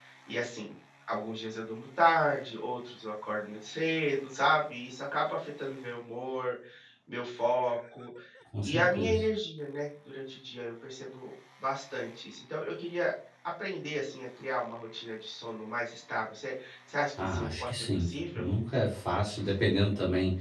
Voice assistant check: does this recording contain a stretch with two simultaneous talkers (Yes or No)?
Yes